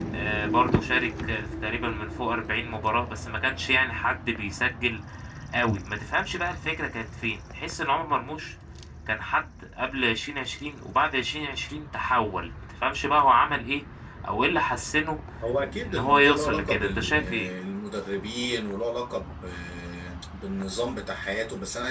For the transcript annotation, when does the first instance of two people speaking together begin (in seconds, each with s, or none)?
15.8 s